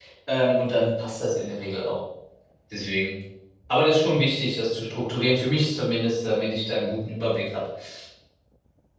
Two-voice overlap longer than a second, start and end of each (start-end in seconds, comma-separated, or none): none